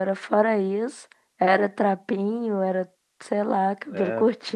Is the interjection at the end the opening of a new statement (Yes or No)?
Yes